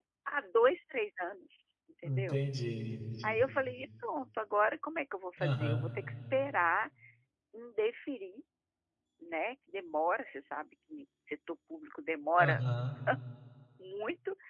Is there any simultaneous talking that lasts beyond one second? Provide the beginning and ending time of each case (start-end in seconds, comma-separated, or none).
none